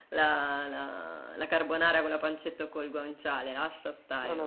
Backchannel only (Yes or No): No